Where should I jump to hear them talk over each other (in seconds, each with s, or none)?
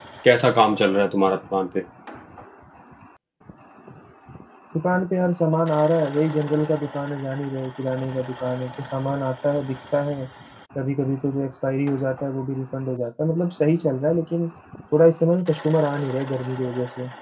none